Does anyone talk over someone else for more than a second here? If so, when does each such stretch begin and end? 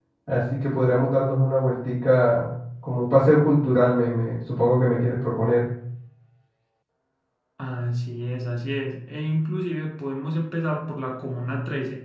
none

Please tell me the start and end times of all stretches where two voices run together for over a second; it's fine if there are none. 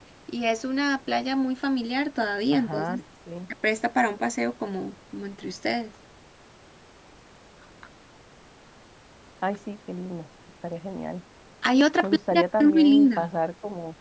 12.0-13.3

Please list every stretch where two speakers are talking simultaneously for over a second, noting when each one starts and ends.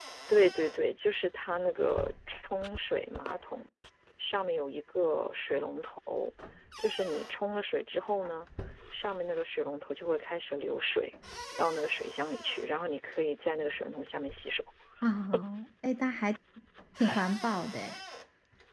none

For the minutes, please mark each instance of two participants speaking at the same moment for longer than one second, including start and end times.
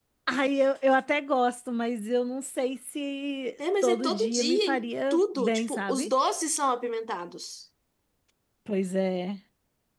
3.8-6.1

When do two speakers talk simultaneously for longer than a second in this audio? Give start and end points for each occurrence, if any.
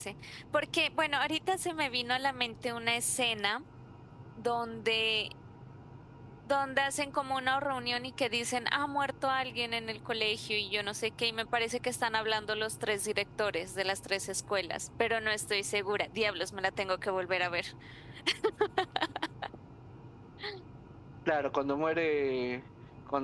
none

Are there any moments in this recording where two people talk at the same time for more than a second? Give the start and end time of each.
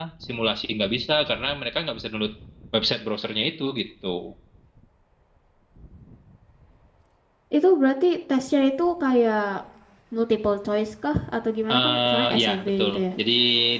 11.7-13.0

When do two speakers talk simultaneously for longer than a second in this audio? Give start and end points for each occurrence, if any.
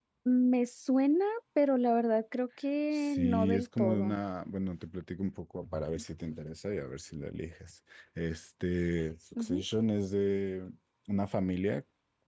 2.9-4.2

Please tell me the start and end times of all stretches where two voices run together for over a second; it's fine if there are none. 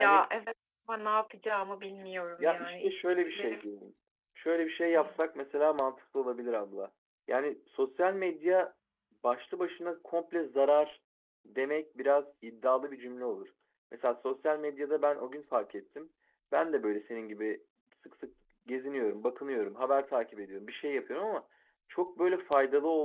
2.4-3.6

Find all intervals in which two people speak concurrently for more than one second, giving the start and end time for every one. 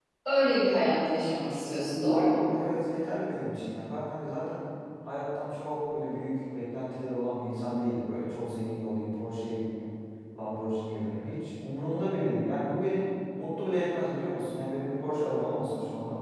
none

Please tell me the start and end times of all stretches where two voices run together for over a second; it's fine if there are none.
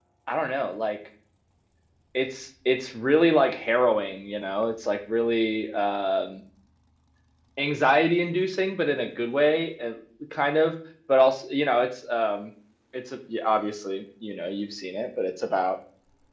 none

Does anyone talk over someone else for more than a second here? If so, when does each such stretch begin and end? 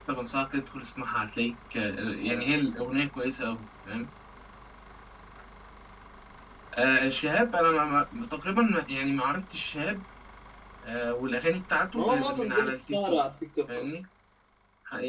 11.9-13.2

